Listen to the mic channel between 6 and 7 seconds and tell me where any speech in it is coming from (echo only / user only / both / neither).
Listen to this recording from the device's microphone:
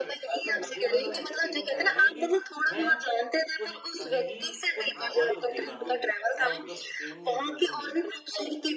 both